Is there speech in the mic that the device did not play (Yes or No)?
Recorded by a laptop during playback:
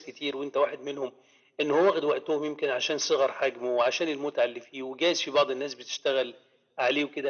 No